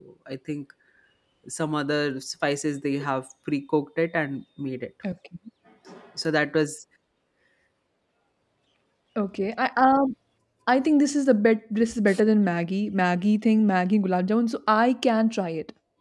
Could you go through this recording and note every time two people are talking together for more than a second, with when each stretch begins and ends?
none

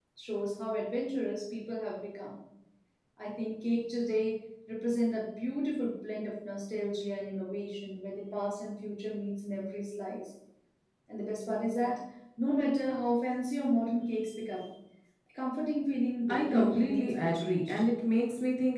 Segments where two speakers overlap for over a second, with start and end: 16.3-17.8

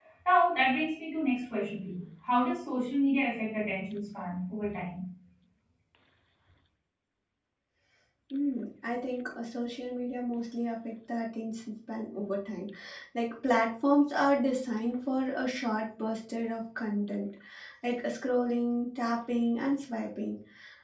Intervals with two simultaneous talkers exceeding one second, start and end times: none

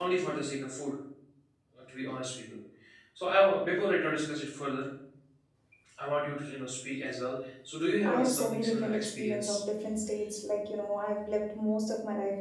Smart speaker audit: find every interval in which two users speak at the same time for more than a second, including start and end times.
8.0-9.6

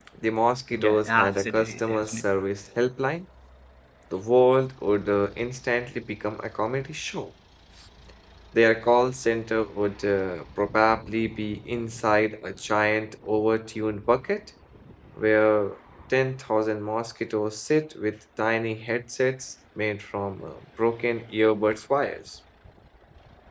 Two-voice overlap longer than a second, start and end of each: 0.8-2.2

